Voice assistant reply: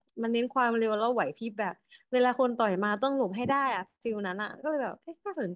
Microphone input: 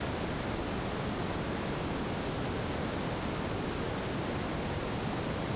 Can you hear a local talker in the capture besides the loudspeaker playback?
No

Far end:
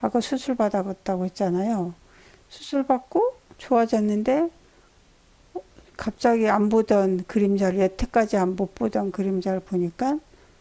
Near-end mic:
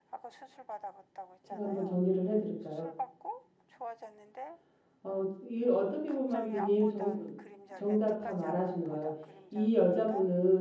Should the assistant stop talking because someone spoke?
Yes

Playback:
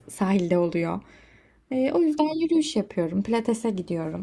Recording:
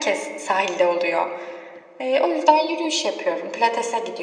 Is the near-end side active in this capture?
No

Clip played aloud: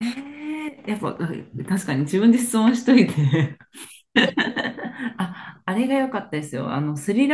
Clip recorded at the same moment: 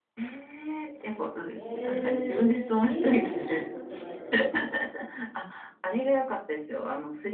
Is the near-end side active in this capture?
Yes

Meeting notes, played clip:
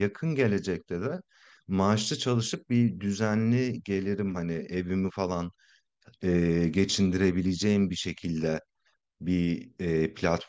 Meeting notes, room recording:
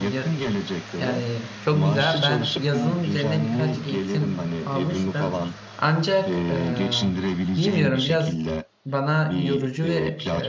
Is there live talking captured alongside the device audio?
Yes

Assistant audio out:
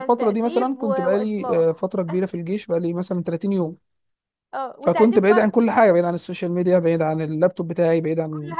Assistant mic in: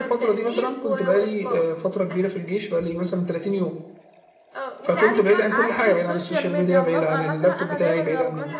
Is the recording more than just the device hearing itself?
Yes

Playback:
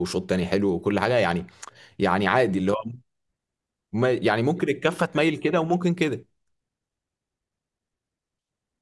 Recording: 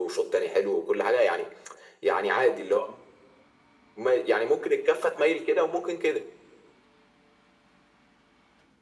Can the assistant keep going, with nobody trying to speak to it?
Yes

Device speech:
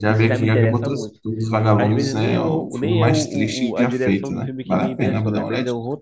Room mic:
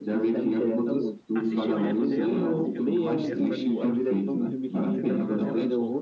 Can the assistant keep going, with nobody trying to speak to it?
No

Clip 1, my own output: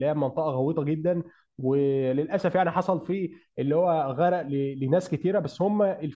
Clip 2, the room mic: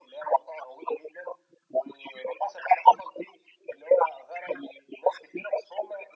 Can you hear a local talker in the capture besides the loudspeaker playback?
No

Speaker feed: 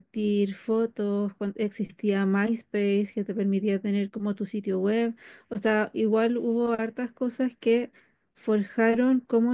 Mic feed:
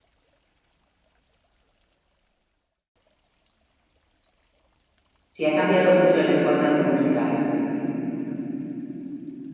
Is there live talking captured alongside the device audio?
Yes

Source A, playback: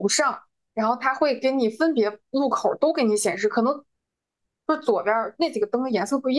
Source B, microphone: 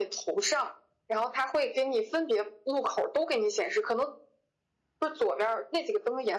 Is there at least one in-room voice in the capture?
No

